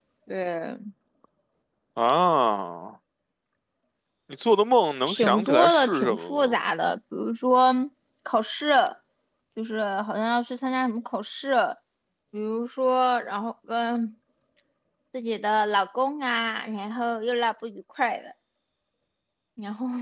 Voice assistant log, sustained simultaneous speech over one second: present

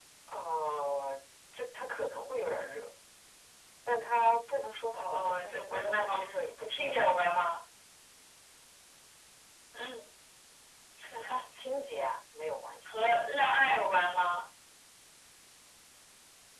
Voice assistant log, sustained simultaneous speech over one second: present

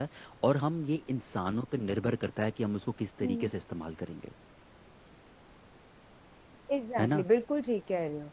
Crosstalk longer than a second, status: none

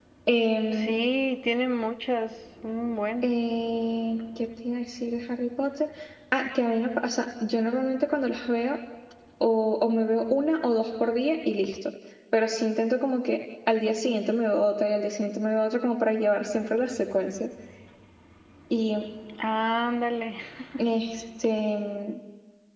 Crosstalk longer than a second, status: none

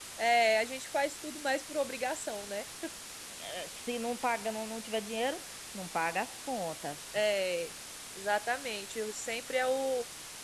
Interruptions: none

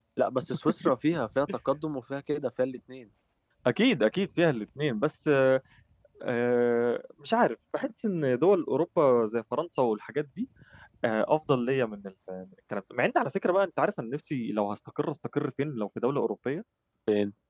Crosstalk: none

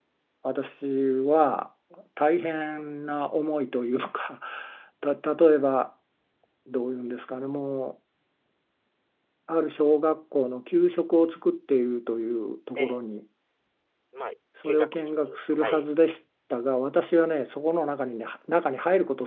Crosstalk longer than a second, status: present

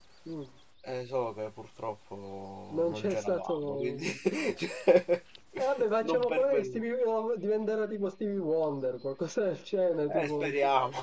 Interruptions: present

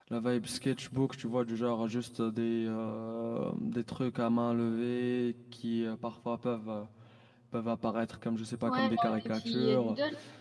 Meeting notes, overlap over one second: present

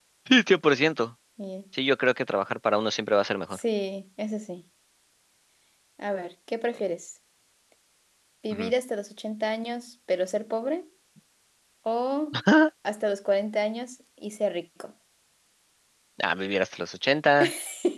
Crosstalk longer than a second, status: none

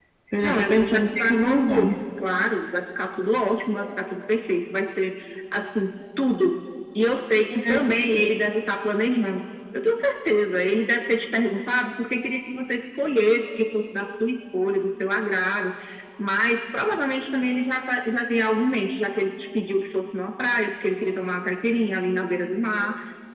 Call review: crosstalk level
present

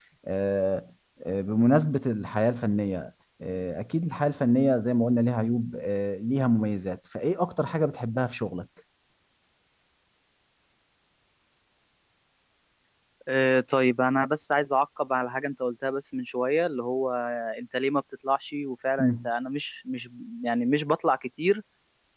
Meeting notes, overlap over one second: none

